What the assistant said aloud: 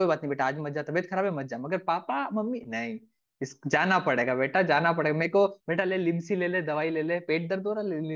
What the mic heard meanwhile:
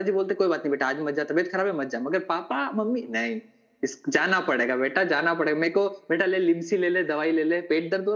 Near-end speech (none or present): none